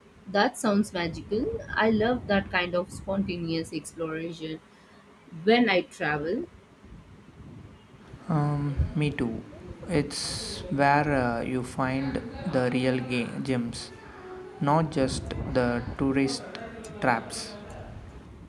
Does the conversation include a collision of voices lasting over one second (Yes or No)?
No